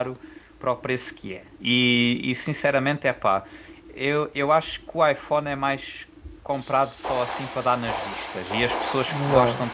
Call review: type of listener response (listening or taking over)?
listening